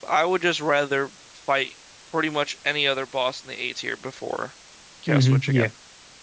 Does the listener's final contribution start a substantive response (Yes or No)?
Yes